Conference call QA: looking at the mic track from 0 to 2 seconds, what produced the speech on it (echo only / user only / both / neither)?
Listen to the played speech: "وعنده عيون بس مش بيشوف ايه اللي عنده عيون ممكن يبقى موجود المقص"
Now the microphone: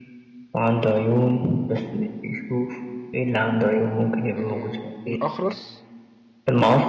echo only